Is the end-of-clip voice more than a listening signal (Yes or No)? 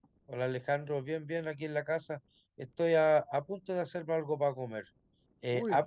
No